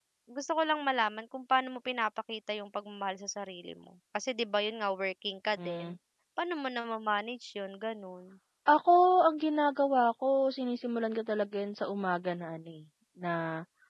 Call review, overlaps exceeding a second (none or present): none